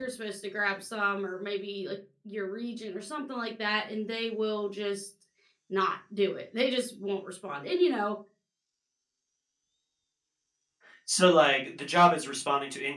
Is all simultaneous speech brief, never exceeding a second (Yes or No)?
Yes